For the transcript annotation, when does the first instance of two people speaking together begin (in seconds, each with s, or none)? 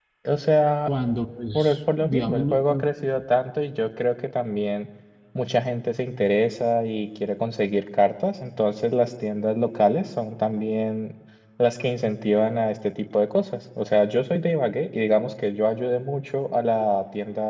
1.5 s